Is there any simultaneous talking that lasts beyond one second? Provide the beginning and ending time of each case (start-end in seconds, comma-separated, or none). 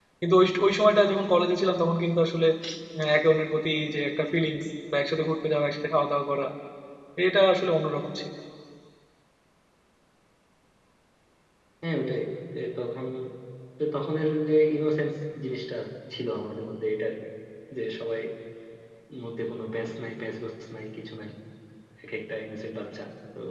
none